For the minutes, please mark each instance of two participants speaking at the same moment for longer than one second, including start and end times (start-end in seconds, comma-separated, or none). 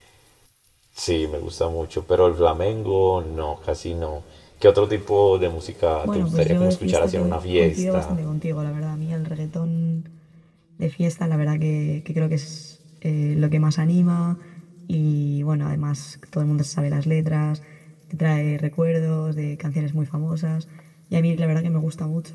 6.0-8.2